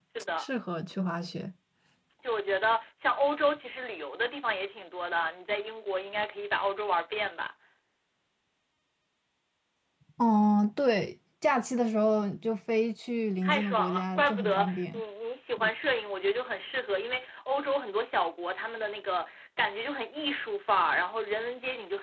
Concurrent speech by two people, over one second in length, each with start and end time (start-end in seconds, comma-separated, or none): 13.4-15.0